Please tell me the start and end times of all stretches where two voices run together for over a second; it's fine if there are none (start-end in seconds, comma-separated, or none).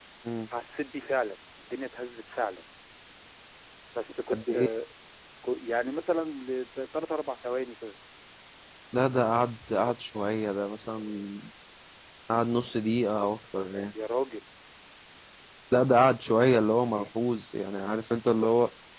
none